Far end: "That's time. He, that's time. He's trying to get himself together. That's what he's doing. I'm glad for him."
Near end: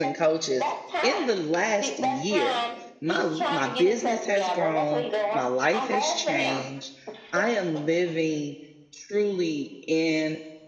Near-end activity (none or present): present